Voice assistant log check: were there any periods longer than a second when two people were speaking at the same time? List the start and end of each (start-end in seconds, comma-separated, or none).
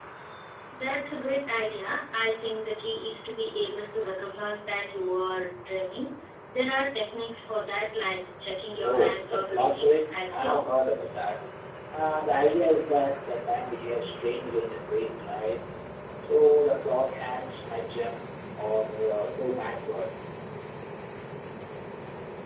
8.8-10.9